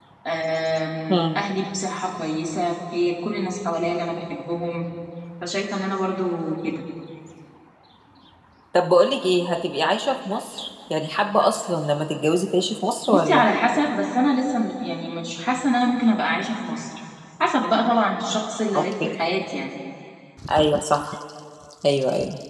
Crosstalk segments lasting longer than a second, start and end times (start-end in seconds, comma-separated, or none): none